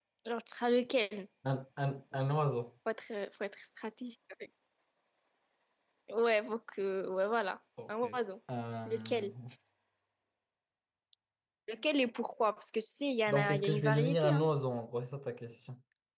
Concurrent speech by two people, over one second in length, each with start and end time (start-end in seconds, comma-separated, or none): 13.3-14.5